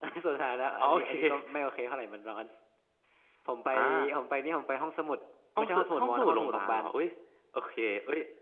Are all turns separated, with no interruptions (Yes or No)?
No